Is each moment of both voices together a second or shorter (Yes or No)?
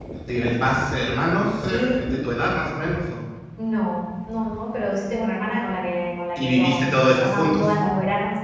No